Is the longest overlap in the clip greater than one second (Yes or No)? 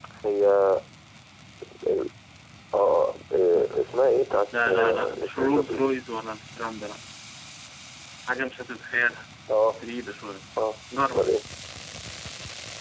Yes